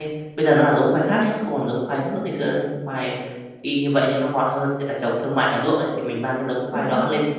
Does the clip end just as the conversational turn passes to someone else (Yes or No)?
No